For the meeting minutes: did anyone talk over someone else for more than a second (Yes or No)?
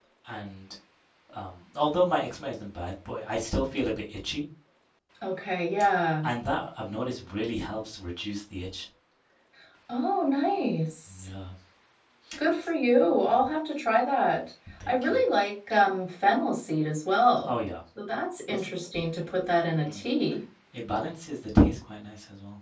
No